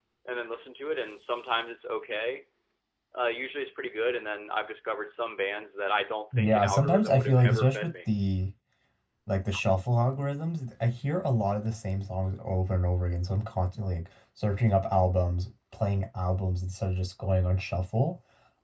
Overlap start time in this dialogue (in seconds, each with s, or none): 6.3 s